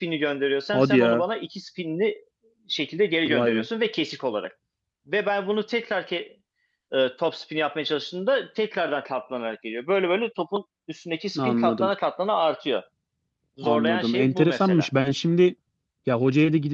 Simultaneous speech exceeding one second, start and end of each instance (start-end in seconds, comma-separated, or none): 13.6-14.9